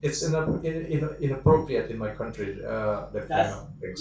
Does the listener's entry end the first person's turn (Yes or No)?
Yes